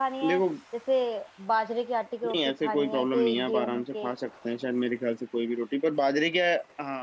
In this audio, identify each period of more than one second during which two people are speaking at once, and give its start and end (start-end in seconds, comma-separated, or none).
2.2-4.1